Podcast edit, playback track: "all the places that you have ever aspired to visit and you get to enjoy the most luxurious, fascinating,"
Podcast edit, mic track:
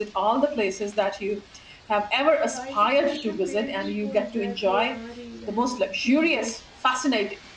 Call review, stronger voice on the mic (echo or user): echo